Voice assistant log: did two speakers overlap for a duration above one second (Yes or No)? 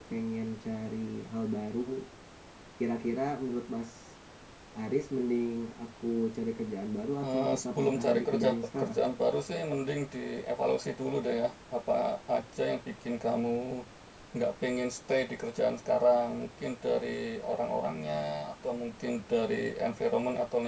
Yes